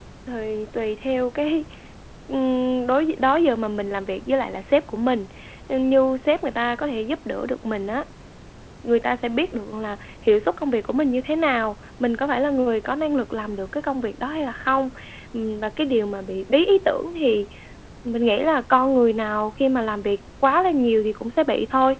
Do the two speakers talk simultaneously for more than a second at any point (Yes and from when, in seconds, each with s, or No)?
No